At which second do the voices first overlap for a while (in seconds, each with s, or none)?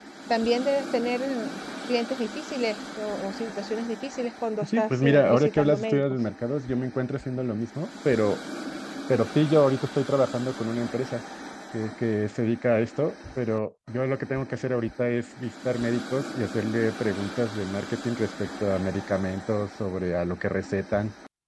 4.6 s